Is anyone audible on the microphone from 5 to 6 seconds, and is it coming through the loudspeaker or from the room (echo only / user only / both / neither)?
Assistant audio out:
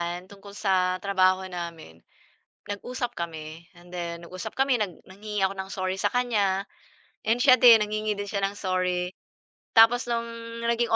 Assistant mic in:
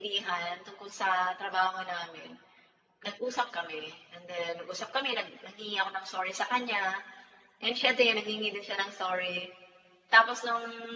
echo only